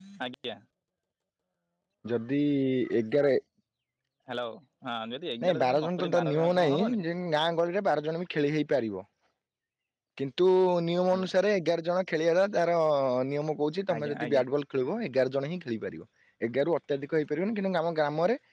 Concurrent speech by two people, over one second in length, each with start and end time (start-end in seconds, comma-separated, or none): 5.4-7.0